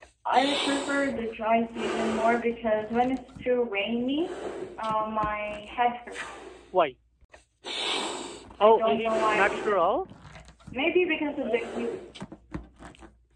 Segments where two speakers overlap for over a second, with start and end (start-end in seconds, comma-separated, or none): 8.6-9.9